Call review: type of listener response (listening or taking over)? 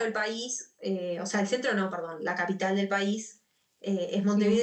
listening